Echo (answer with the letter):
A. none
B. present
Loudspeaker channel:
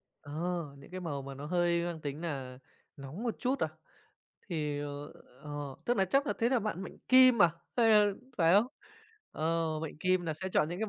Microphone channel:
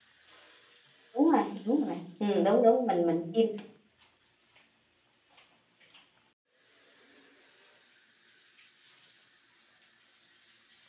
A